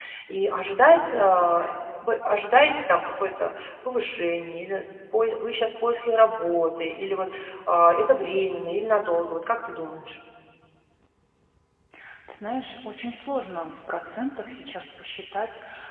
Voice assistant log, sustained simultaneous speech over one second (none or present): none